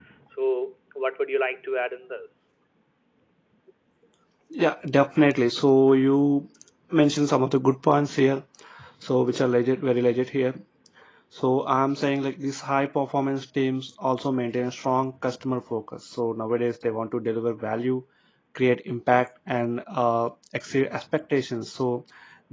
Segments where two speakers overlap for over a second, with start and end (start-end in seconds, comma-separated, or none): none